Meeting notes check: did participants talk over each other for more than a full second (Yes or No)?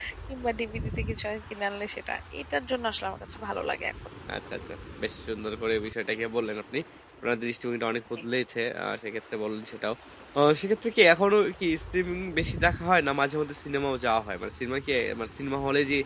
No